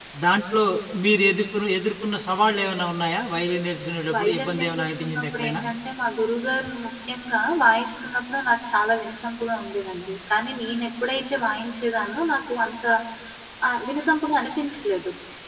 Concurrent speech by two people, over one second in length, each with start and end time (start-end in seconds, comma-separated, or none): 4.2-5.6